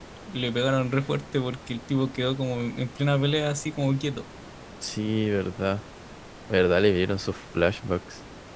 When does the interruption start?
none

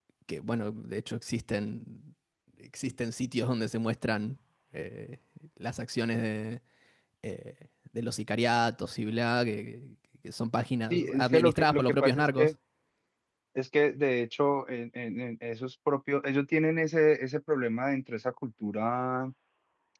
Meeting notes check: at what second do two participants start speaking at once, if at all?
11 s

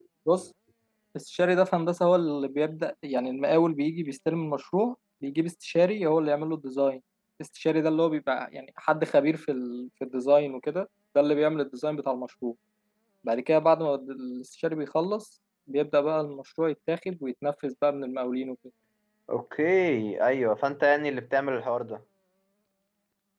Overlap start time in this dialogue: none

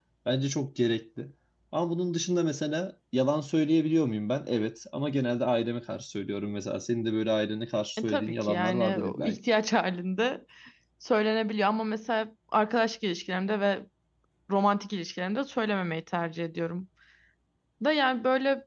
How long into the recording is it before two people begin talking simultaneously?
8 s

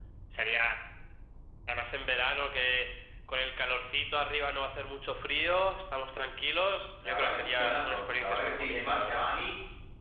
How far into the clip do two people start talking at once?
7 s

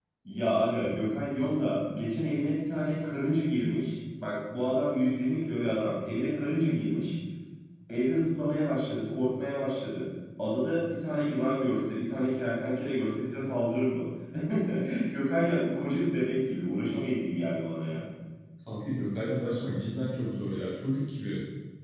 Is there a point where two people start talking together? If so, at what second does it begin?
none

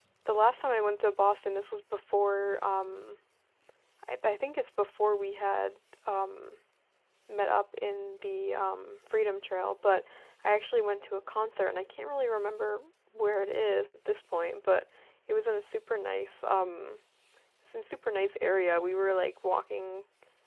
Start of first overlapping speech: none

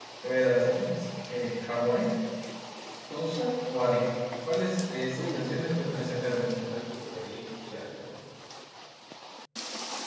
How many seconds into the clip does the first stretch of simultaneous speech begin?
5 s

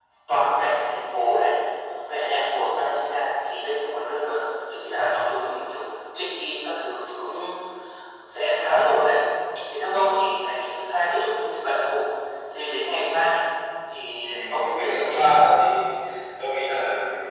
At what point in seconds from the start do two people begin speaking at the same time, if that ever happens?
14 s

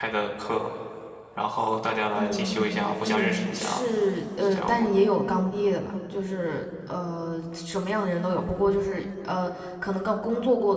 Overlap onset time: 2 s

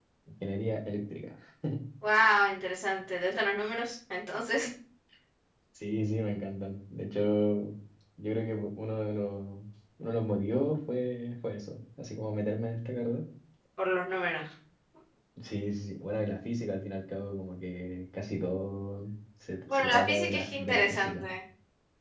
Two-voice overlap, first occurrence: 20 s

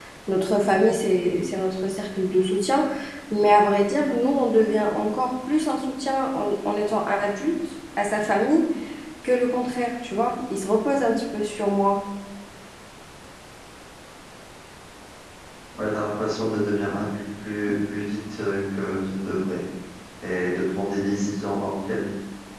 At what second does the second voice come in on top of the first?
none

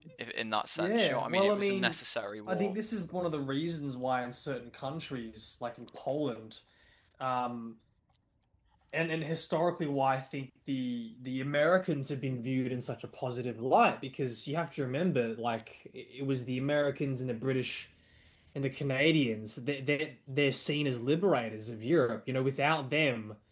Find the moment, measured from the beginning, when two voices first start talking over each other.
1 s

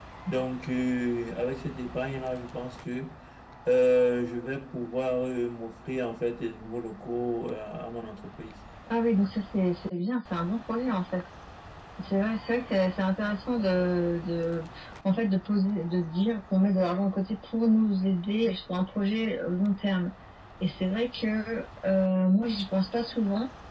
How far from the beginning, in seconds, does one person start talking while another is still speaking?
none

